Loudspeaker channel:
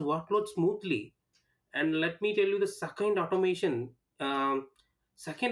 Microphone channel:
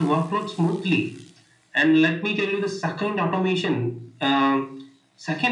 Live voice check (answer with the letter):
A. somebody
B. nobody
B